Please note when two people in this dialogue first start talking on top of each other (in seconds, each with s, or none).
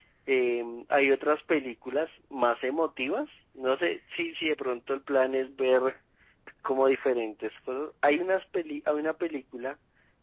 none